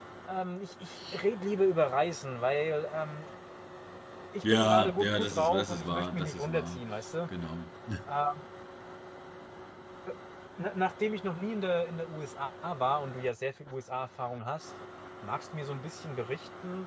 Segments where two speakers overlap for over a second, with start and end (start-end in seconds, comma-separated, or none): 4.4-6.8